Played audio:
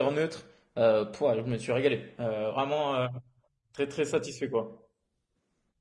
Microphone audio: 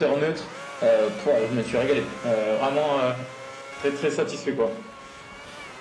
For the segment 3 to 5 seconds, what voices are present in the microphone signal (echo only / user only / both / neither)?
echo only